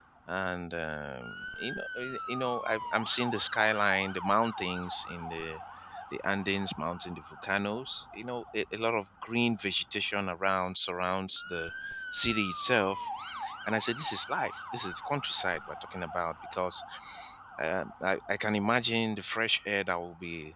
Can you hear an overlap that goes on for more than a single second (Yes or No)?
No